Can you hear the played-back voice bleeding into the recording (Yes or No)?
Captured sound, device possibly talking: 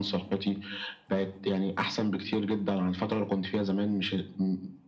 Yes